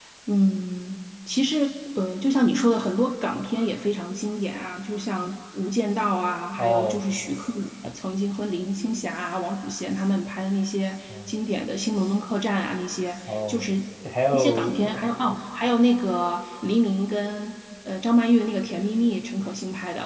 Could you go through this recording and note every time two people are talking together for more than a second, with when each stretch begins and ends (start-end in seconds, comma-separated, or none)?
none